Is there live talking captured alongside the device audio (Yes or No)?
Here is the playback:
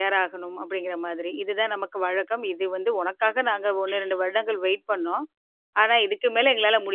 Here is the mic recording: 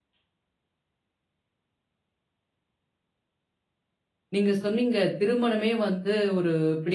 Yes